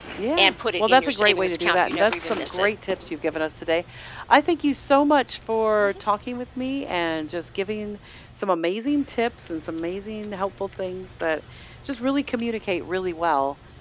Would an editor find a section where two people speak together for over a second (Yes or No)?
Yes